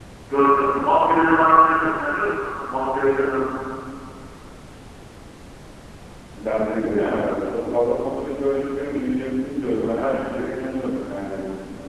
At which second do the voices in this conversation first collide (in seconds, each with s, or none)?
none